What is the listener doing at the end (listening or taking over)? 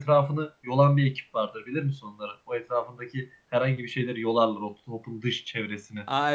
taking over